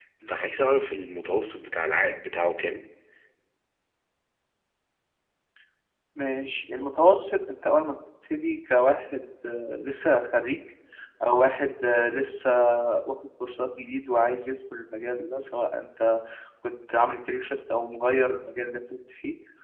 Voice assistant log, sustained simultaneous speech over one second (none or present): none